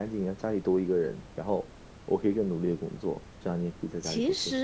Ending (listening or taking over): taking over